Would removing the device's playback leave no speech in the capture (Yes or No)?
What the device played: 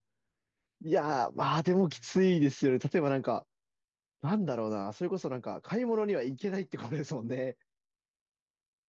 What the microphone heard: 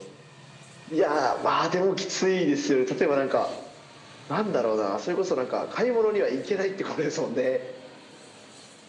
Yes